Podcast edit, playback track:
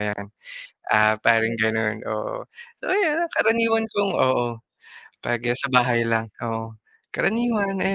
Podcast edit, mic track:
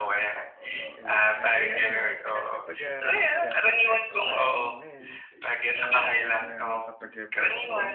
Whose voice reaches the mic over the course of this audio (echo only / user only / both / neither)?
both